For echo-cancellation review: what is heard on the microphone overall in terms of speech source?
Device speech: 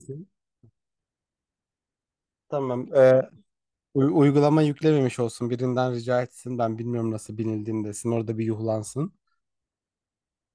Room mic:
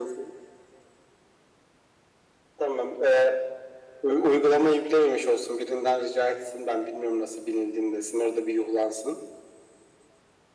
echo only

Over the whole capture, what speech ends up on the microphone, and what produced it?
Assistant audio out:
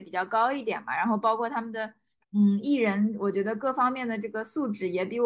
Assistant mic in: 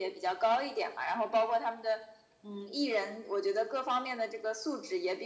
echo only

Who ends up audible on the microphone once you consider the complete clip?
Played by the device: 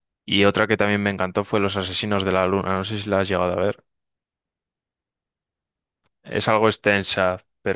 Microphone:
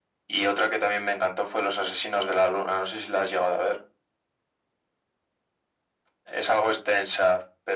echo only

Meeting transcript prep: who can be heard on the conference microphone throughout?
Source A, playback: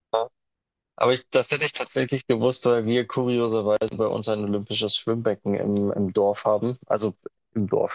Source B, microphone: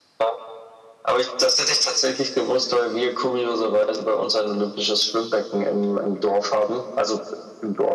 echo only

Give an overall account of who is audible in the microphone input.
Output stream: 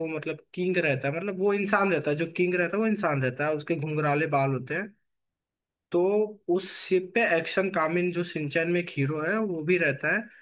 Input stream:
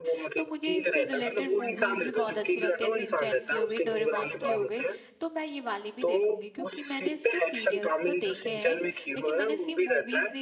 both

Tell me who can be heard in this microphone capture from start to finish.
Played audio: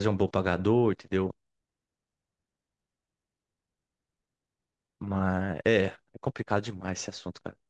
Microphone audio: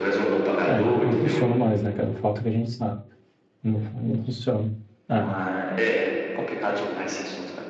both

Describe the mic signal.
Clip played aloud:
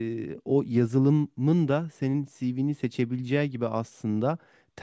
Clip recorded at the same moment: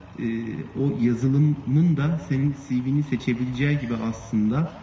echo only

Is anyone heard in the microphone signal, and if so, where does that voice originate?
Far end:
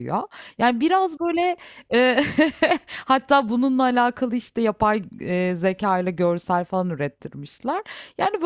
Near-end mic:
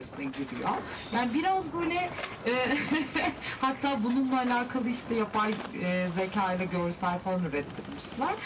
echo only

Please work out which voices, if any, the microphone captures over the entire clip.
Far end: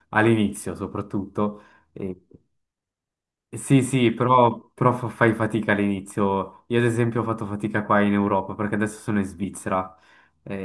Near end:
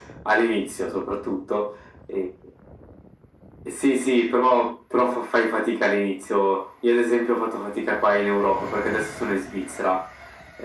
echo only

